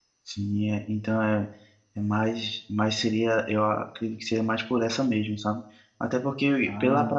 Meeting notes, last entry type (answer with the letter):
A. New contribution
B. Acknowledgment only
B